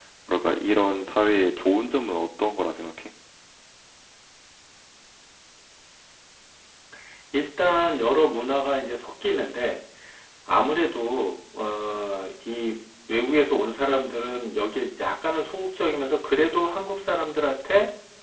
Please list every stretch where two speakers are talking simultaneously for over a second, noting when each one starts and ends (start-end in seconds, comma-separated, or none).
none